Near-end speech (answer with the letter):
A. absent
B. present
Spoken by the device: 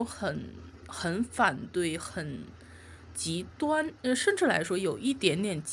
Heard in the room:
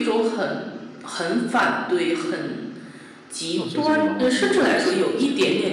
B